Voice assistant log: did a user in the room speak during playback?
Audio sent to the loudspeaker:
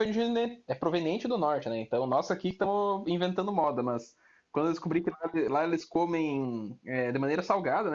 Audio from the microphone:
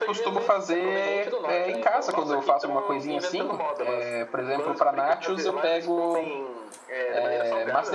Yes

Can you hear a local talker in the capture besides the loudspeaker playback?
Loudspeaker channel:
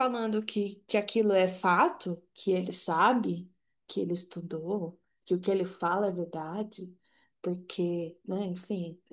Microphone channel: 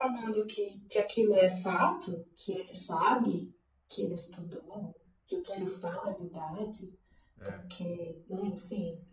Yes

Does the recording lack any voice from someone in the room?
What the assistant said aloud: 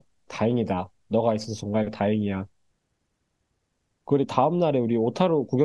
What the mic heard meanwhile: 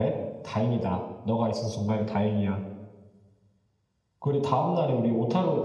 Yes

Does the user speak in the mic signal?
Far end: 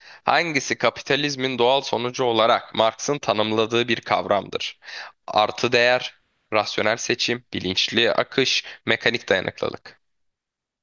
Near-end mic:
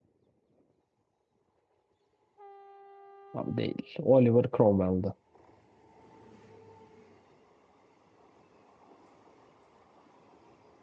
Yes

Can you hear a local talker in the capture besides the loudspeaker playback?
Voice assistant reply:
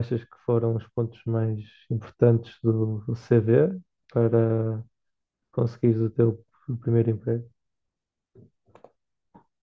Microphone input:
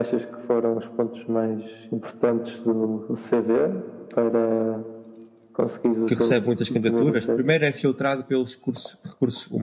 Yes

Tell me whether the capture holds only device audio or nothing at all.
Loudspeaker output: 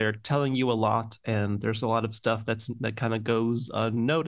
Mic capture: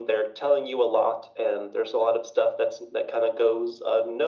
Yes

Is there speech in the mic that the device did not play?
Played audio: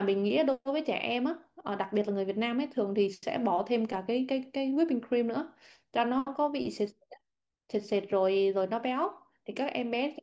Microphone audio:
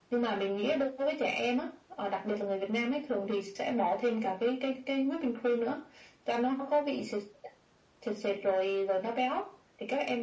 No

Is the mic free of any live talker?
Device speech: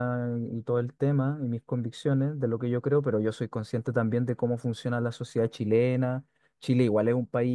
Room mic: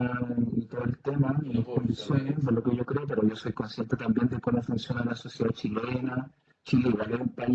No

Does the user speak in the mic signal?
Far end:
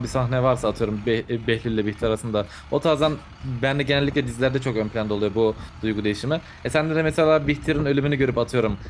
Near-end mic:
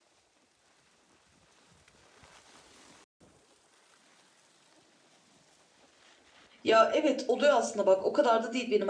Yes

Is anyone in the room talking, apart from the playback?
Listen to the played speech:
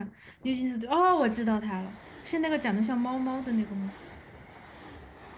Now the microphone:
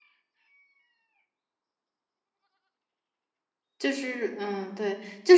Yes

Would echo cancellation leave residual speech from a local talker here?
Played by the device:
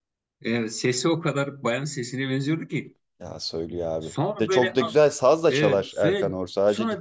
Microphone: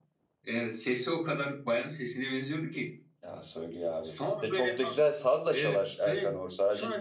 No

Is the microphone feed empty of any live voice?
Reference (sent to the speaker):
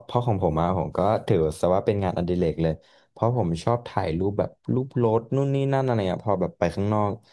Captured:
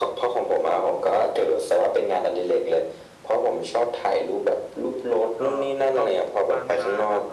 No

